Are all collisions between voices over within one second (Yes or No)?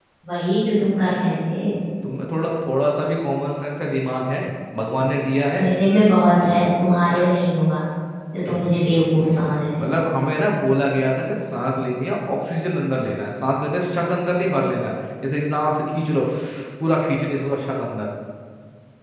Yes